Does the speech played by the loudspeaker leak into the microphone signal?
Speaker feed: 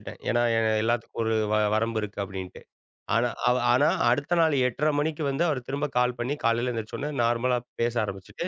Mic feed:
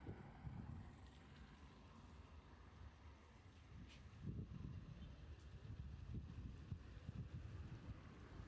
No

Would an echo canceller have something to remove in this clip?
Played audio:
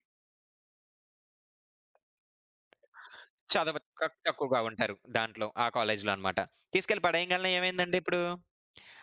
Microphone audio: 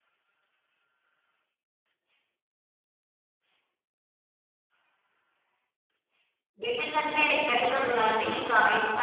No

